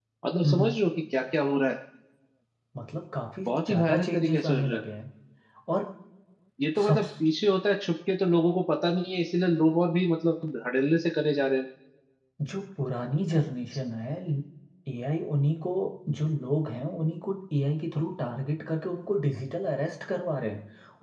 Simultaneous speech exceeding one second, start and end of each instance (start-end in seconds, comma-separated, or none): 3.5-4.8